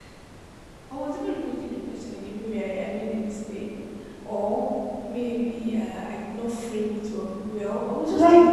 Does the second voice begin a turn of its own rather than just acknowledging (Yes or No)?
Yes